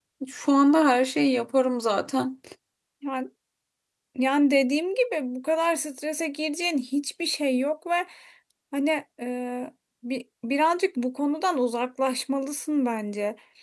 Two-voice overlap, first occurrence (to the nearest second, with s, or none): none